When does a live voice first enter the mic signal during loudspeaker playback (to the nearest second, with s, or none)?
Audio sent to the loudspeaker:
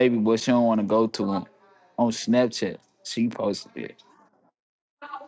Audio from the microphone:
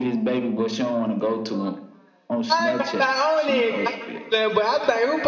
2 s